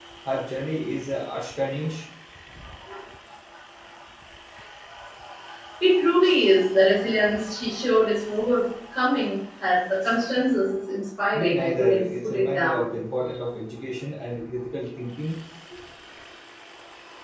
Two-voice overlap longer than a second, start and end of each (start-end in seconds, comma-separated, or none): 11.3-12.9